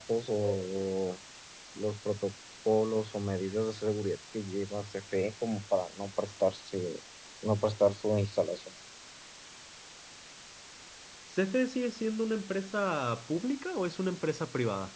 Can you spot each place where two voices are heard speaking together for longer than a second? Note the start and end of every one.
none

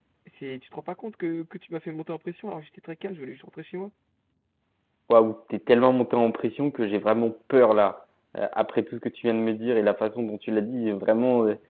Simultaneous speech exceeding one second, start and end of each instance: none

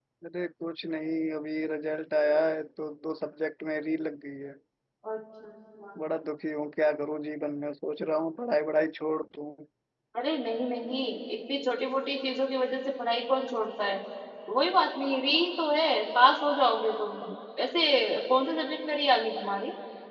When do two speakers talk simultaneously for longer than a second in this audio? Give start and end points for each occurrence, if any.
none

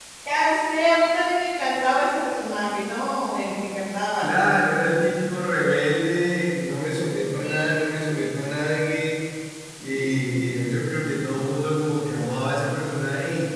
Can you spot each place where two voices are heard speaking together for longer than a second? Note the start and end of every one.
none

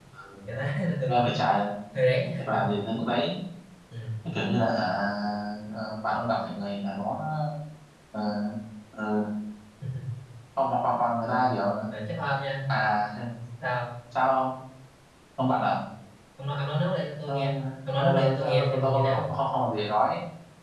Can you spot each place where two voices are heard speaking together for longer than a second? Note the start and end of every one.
18.0-19.3

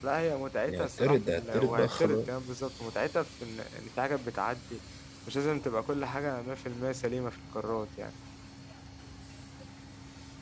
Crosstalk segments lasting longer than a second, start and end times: 0.7-2.3

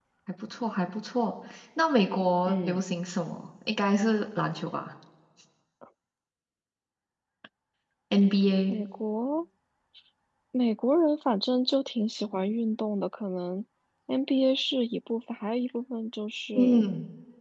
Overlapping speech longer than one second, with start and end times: none

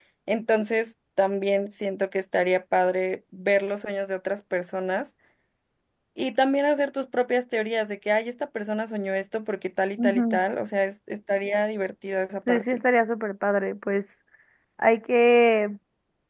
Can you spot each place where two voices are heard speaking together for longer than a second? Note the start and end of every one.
none

